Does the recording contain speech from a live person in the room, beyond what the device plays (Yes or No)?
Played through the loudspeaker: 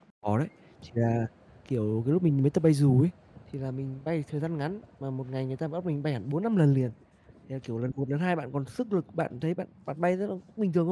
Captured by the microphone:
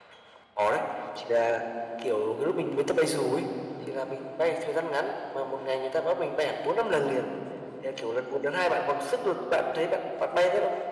No